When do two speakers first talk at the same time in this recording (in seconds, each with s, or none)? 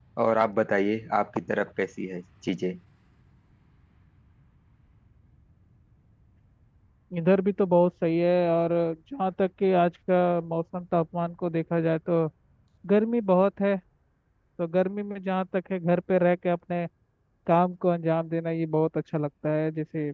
none